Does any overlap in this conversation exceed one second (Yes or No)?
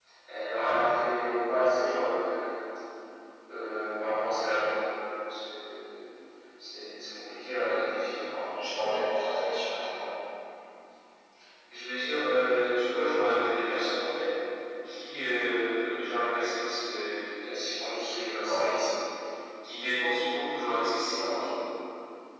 No